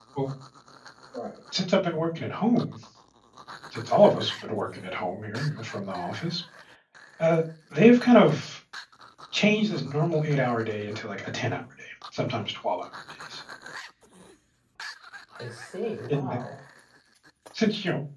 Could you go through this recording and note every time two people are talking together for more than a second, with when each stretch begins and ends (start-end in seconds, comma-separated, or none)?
none